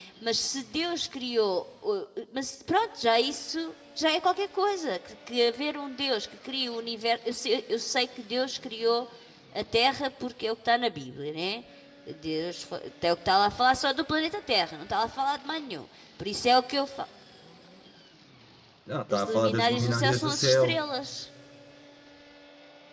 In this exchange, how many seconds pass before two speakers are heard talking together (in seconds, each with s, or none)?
19.1 s